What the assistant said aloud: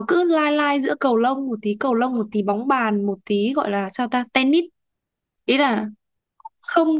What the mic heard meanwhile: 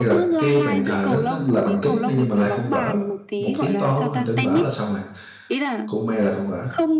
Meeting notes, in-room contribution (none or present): present